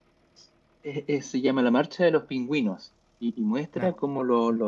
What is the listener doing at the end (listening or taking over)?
listening